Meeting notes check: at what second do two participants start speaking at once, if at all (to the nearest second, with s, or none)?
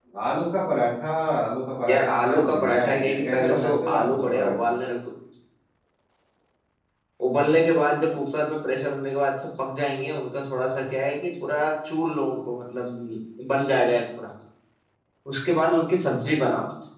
2 s